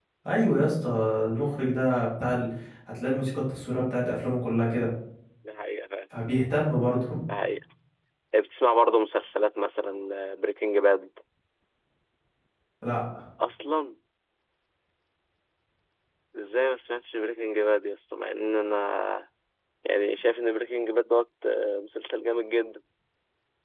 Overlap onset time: none

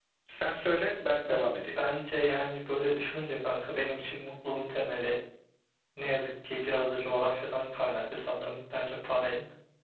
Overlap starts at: none

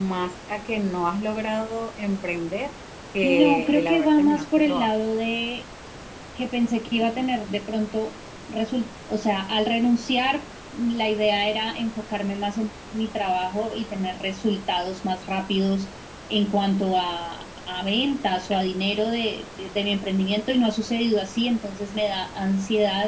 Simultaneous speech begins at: 3.2 s

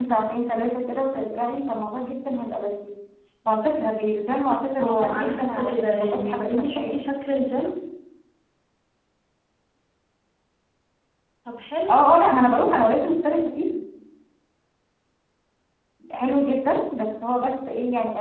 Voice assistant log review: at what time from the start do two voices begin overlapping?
4.8 s

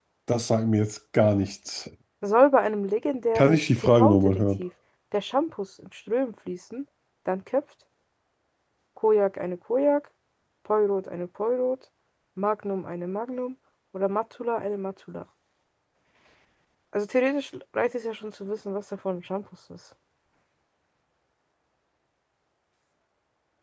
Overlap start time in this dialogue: 3.4 s

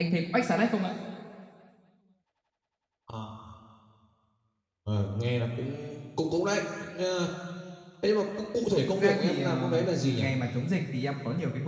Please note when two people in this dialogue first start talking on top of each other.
8.9 s

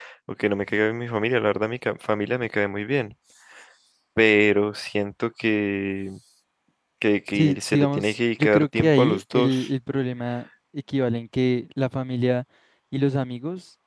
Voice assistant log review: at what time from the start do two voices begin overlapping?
7.3 s

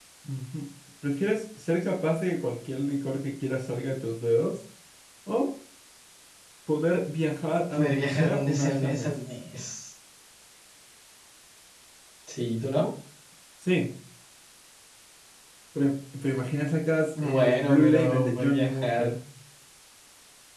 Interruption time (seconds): 7.7 s

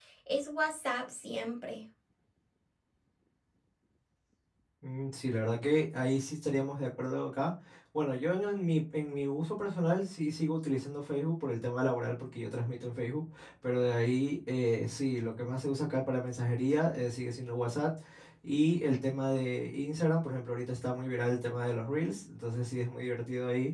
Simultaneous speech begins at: none

